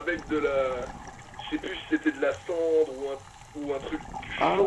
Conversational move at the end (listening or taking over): taking over